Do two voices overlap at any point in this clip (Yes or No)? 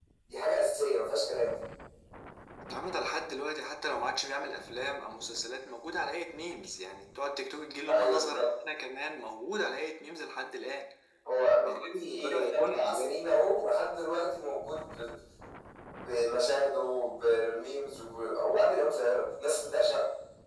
Yes